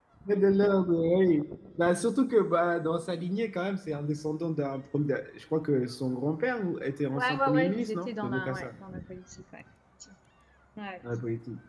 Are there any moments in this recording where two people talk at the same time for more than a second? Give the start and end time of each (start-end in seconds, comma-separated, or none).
7.1-8.7